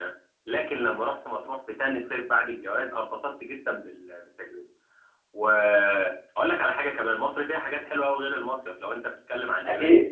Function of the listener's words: listening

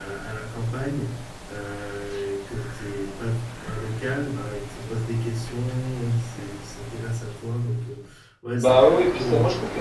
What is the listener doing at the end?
taking over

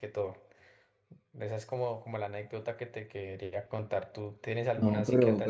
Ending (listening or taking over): taking over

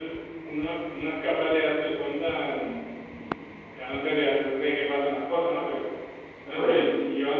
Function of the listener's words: listening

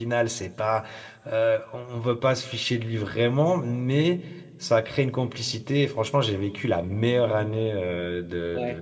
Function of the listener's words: listening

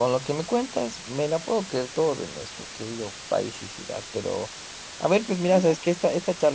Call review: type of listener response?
listening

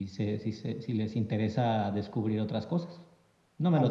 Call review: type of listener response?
taking over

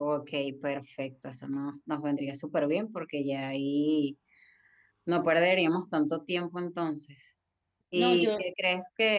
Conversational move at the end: listening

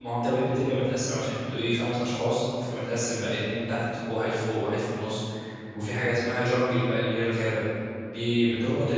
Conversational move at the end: listening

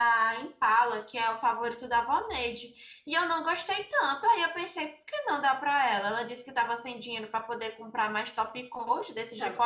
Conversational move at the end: taking over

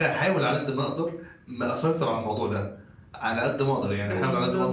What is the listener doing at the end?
listening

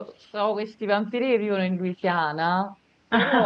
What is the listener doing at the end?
listening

